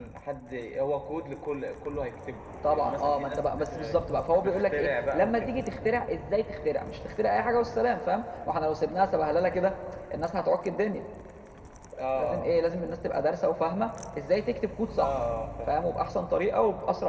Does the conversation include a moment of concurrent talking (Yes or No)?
Yes